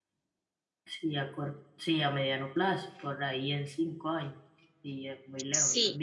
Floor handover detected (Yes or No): Yes